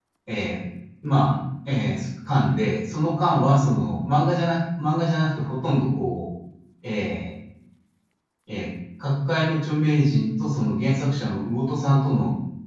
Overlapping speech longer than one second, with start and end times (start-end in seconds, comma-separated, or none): none